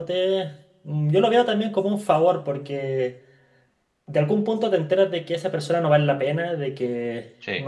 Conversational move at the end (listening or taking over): listening